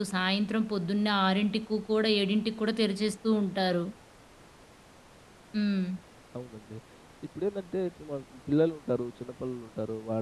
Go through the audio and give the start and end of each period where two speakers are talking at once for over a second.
none

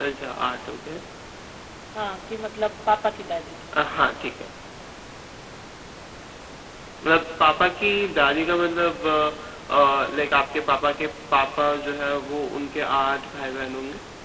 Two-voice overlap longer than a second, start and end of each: none

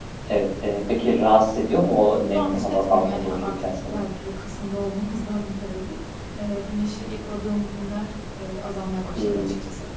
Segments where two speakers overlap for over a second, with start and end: 2.3-4.0

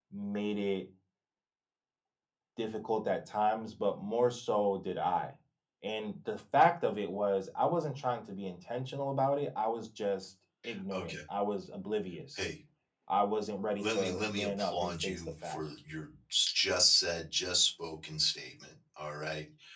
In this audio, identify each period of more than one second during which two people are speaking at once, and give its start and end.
13.8-15.6

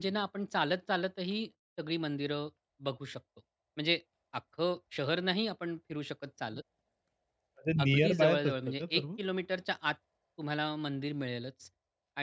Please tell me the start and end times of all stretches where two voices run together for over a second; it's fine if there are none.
7.8-9.0

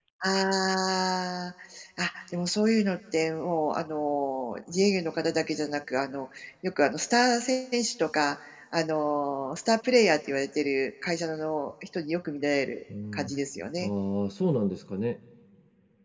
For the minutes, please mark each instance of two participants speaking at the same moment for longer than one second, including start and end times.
none

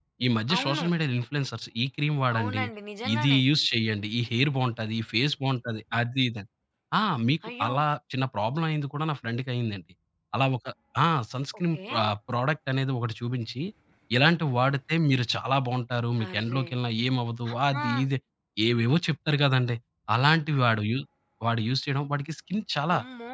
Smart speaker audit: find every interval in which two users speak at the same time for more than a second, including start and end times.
none

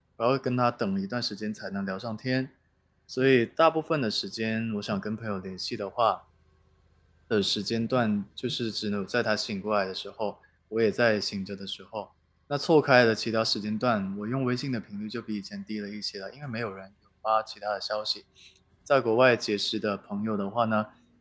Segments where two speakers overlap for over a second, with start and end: none

